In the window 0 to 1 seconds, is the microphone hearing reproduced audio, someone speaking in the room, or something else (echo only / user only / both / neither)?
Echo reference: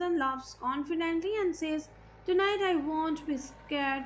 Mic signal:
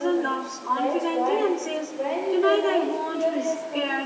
both